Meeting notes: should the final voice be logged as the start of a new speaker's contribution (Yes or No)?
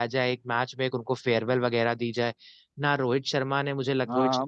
Yes